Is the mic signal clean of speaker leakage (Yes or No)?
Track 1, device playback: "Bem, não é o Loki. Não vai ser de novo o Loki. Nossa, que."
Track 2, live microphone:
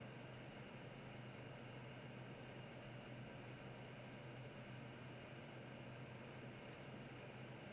Yes